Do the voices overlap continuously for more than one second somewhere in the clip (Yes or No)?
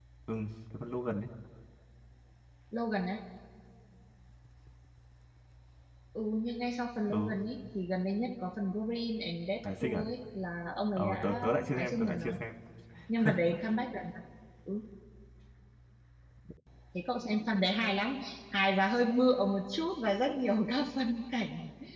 Yes